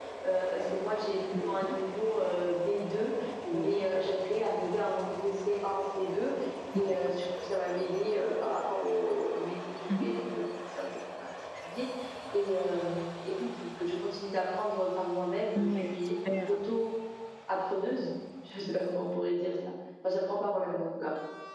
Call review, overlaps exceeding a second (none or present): none